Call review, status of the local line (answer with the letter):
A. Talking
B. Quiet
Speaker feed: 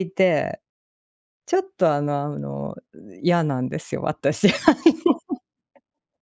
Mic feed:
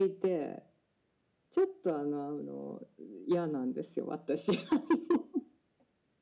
B